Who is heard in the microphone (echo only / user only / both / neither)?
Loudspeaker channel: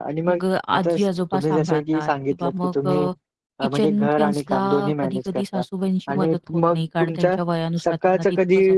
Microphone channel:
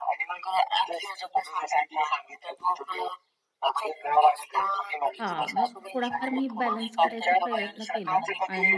both